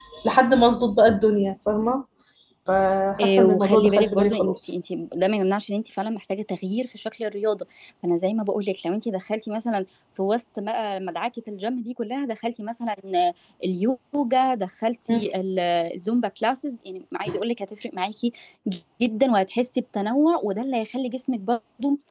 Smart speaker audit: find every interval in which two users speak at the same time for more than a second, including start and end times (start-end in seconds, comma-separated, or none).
3.2-4.5